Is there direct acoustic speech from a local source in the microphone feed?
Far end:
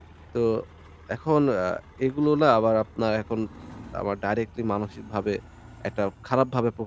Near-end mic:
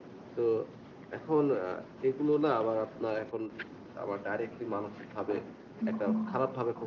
Yes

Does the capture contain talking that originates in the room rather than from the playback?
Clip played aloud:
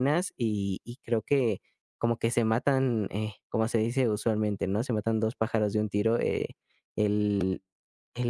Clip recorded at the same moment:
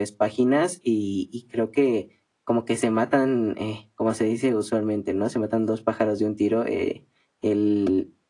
No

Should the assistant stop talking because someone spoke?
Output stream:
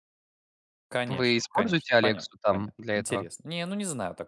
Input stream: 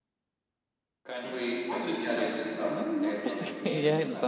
Yes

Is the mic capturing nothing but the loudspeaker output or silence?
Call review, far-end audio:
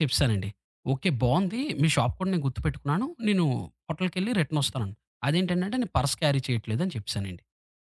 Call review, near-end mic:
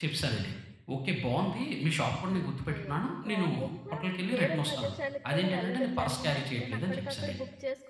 No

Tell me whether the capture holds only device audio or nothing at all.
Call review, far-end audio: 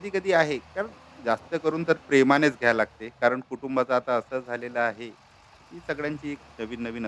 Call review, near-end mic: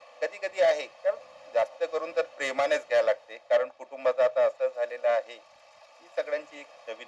Yes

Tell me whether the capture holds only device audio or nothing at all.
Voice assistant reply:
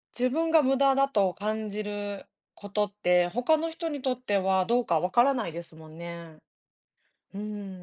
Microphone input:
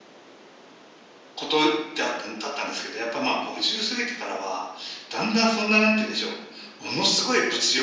No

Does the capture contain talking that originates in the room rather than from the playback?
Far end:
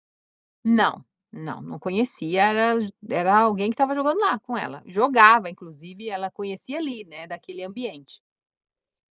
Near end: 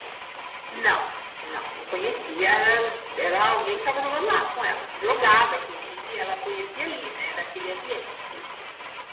No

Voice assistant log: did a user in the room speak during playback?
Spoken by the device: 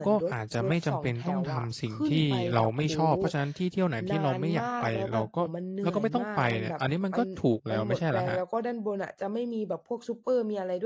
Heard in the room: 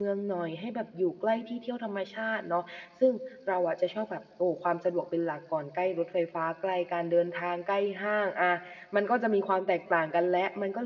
Yes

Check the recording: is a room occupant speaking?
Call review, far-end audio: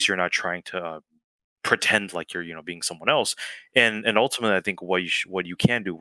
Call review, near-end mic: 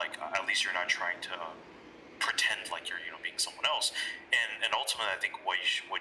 No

